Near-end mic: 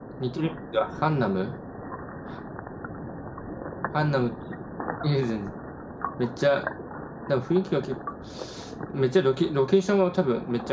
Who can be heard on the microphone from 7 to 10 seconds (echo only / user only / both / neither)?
user only